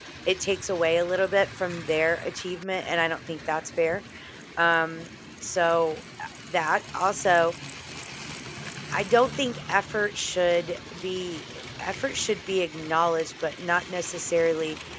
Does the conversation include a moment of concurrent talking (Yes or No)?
No